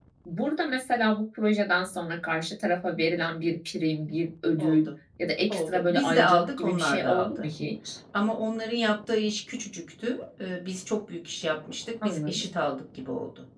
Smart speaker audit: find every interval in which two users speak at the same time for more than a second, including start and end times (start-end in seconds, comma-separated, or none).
5.5-7.5